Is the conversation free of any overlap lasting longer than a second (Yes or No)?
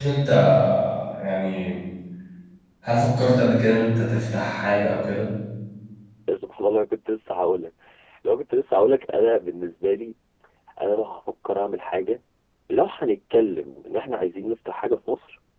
Yes